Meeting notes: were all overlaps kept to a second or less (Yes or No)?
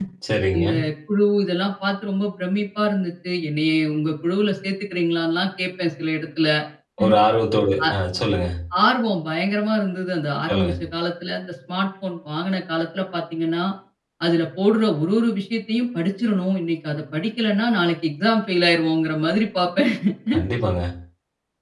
Yes